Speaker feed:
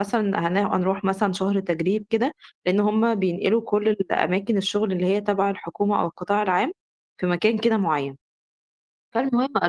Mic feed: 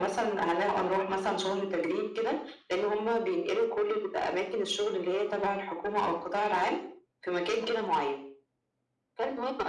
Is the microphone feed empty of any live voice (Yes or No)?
Yes